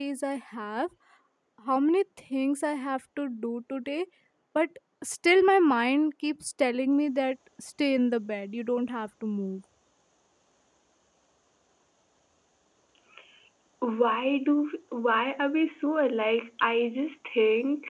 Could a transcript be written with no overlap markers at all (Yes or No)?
Yes